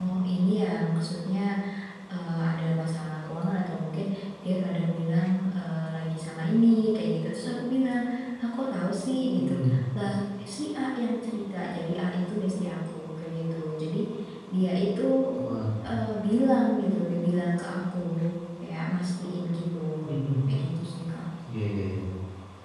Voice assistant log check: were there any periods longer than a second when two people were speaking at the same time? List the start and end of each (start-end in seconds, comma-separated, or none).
none